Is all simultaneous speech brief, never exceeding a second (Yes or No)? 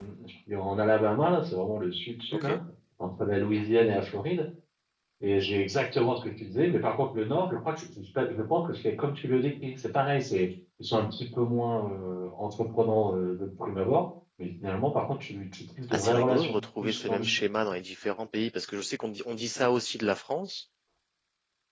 No